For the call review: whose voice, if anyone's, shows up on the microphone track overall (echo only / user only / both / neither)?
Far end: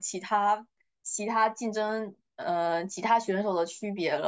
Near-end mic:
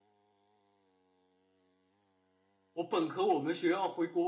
user only